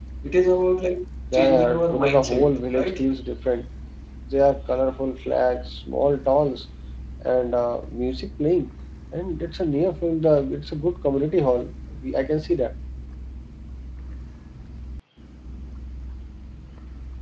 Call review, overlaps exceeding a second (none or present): present